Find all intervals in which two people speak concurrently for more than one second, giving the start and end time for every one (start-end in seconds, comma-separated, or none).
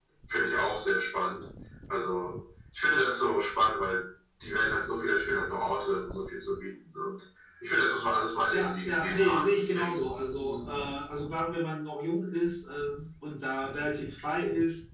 8.5-10.8